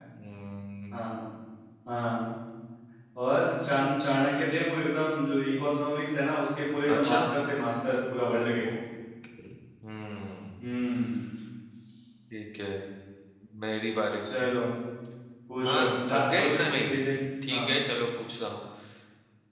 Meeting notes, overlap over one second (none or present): present